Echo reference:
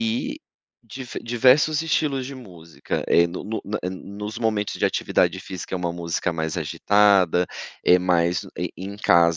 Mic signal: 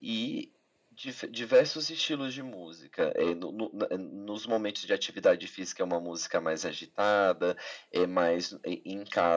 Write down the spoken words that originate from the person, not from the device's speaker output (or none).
none